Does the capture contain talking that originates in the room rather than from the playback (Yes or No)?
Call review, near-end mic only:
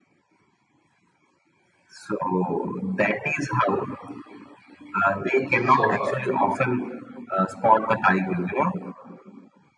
Yes